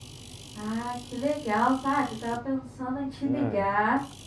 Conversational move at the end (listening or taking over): listening